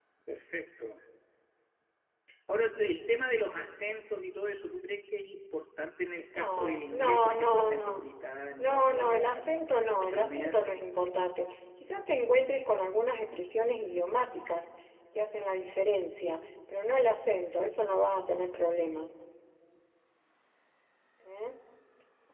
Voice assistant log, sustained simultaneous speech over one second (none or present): present